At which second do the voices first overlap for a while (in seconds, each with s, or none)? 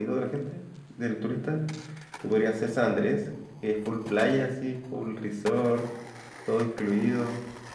none